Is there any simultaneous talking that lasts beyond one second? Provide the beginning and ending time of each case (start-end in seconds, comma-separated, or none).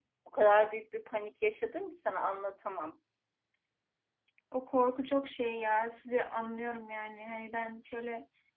none